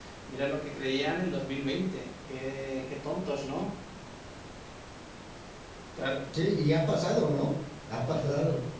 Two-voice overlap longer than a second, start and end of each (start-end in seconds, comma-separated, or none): none